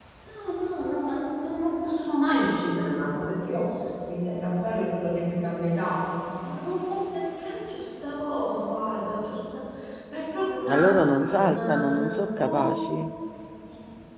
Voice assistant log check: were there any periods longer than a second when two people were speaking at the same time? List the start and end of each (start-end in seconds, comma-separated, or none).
10.7-12.7